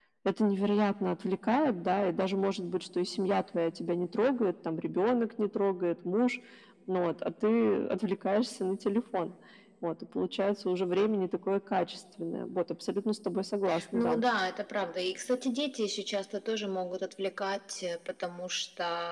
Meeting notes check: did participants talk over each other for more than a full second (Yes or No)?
No